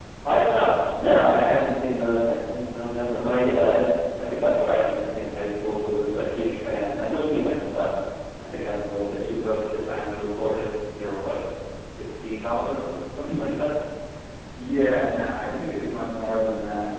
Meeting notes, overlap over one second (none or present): none